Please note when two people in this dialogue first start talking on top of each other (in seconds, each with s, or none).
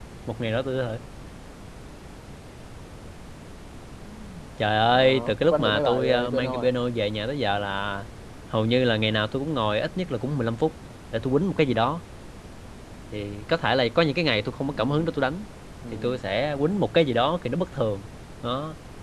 4.9 s